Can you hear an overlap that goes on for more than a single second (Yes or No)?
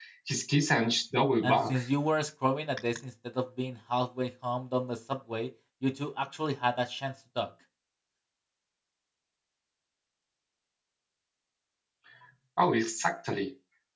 No